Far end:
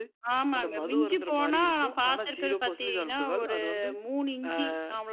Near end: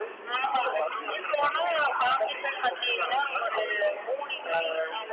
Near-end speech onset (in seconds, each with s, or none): none